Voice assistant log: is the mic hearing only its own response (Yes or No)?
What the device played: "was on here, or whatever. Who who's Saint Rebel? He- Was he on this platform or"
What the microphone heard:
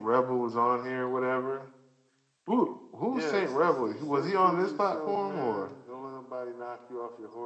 No